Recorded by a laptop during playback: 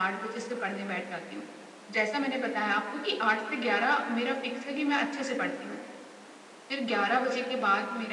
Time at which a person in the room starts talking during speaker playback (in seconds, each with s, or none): none